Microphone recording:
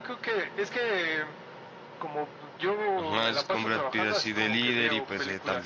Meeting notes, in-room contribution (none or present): present